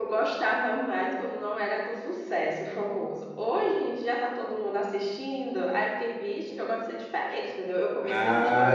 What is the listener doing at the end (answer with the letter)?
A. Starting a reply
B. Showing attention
A